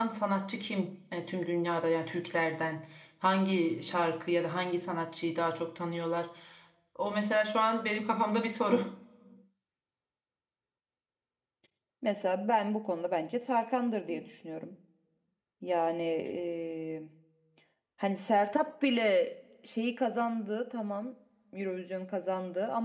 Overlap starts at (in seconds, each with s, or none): none